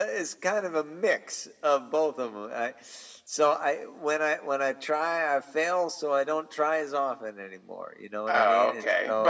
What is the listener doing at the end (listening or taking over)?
taking over